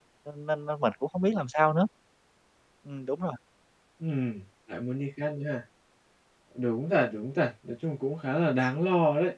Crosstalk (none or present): none